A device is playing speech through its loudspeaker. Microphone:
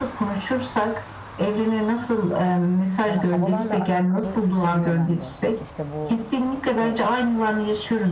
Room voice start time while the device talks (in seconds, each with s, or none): 3.0 s